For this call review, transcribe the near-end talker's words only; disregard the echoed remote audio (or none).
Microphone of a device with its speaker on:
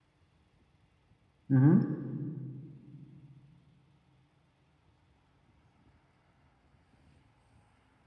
mhm.